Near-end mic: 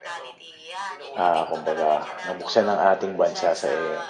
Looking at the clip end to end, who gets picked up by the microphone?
both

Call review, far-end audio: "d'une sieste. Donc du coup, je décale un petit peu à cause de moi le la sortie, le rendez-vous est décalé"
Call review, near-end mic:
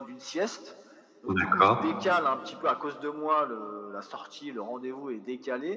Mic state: both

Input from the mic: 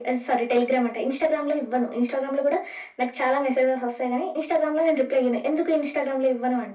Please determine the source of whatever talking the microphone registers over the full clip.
echo only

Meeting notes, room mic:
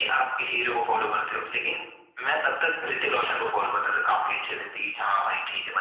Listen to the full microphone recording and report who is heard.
echo only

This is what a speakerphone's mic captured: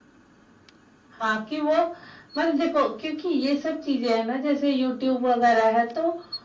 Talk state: echo only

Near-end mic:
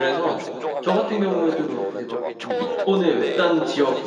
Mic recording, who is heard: both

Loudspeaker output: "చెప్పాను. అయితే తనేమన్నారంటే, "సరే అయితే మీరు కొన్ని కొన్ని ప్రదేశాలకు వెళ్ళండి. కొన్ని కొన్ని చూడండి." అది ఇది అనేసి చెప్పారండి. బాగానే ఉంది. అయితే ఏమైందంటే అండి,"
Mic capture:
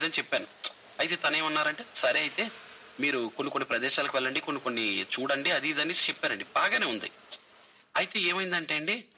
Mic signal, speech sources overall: echo only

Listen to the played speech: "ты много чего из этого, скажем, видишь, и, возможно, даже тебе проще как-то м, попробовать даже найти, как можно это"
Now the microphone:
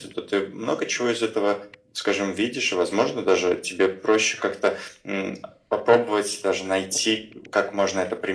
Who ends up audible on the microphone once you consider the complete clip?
echo only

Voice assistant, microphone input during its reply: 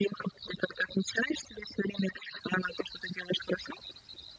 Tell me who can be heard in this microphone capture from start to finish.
echo only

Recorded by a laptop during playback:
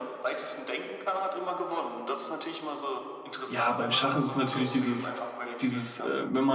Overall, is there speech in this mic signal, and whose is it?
both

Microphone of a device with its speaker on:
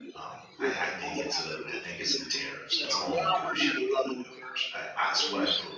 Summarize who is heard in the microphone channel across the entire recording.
both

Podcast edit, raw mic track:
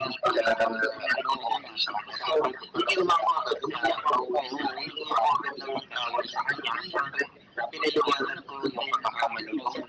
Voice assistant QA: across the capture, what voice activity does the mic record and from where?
echo only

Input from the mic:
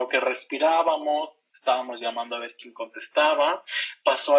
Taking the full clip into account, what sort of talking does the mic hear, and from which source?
echo only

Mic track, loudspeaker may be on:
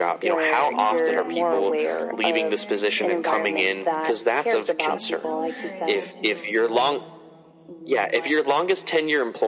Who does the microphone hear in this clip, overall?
both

